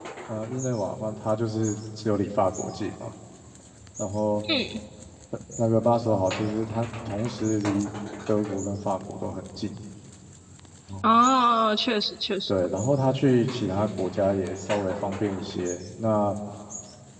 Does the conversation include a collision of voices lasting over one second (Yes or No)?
No